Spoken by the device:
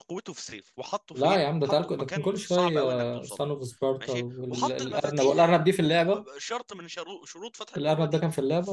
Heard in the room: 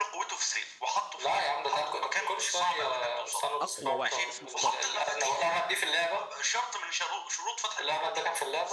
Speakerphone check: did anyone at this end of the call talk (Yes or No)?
Yes